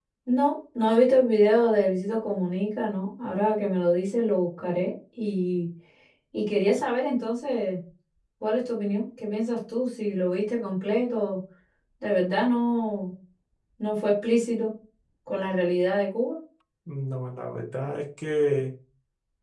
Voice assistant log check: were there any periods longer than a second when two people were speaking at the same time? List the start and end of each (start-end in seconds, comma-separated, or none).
none